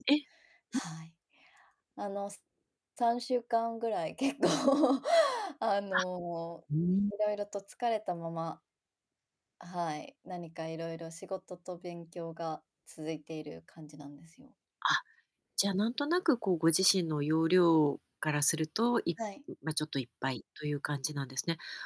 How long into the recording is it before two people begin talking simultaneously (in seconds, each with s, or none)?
none